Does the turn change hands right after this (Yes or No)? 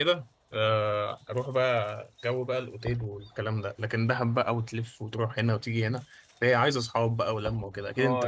Yes